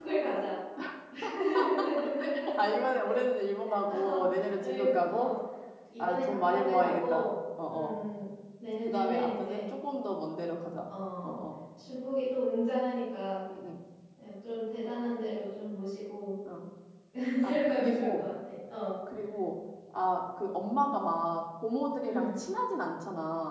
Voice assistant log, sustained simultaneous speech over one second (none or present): present